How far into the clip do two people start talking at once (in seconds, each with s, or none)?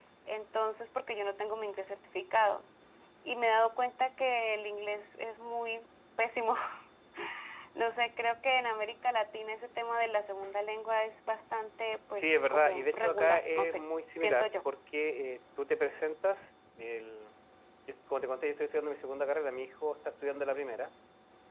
12.2 s